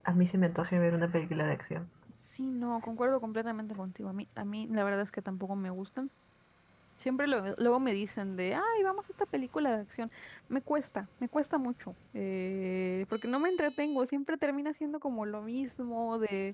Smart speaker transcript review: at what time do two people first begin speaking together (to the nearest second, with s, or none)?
none